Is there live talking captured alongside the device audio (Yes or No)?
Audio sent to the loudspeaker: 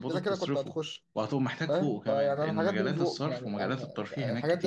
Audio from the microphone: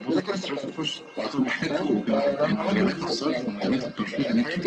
No